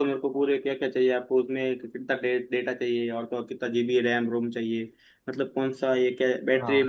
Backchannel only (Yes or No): Yes